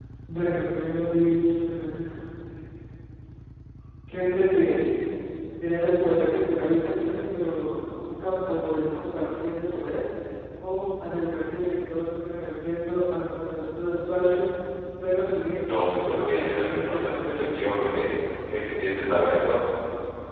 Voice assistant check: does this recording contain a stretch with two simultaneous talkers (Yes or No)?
Yes